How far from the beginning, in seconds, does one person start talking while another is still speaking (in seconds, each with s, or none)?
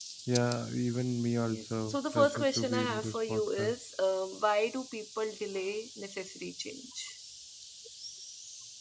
1.5 s